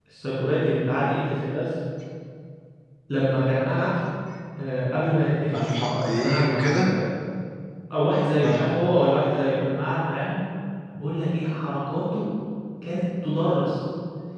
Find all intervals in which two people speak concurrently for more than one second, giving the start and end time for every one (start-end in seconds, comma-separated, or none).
5.5-6.9